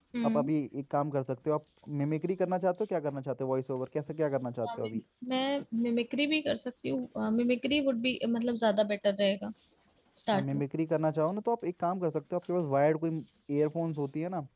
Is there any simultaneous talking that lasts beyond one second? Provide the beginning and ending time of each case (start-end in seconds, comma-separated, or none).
none